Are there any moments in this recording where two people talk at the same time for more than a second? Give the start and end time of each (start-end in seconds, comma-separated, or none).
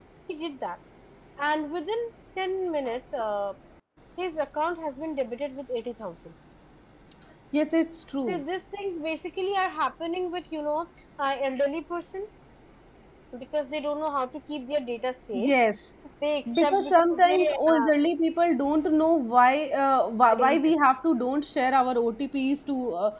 16.6-17.9